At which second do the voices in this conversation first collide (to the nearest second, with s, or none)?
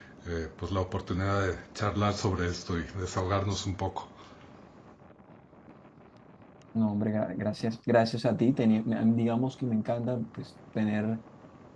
none